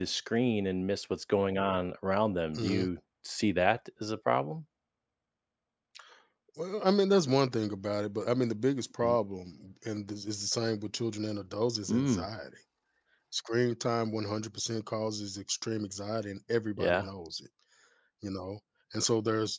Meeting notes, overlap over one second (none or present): none